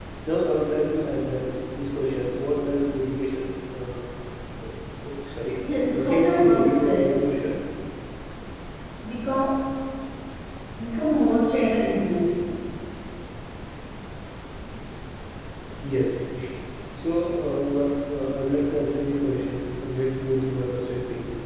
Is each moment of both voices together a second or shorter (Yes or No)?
No